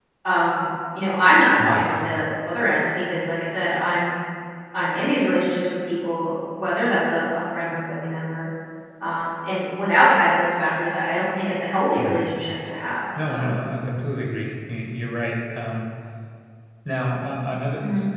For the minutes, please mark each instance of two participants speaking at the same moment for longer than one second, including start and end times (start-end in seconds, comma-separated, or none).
none